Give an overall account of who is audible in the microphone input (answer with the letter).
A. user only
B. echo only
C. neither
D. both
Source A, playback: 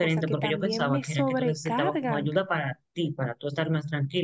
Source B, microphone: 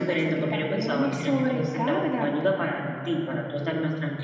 B